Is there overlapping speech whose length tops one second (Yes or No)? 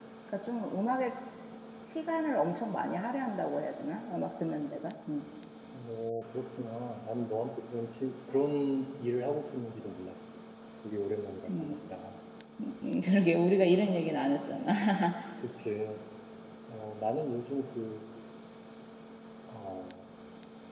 No